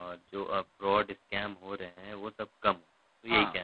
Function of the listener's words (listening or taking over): taking over